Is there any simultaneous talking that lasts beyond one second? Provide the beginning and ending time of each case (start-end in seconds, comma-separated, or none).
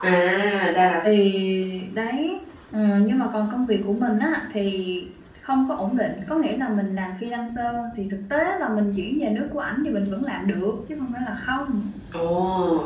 none